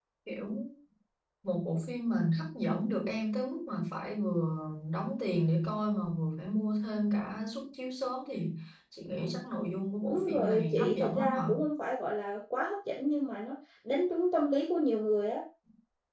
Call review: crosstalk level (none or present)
present